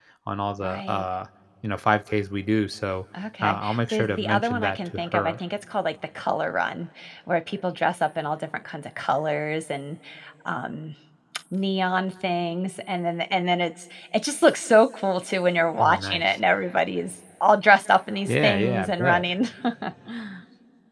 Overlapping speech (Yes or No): Yes